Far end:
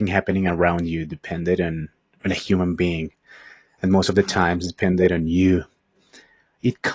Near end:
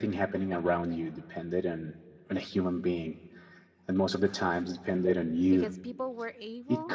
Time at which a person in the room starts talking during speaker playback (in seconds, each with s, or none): 5.5 s